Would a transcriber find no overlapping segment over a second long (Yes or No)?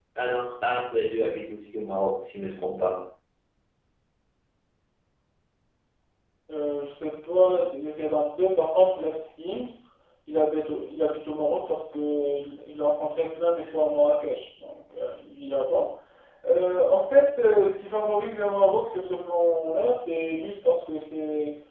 Yes